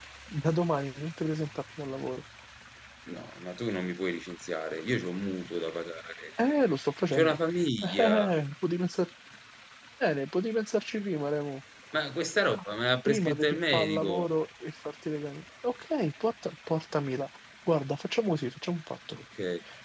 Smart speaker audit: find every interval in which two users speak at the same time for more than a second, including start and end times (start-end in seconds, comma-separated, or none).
13.1-14.3